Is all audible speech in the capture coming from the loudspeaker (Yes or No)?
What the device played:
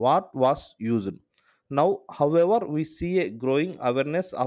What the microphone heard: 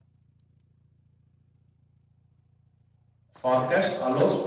No